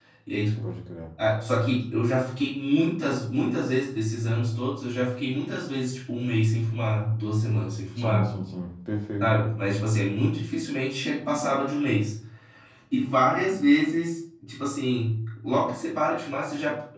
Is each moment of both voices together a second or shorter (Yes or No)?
Yes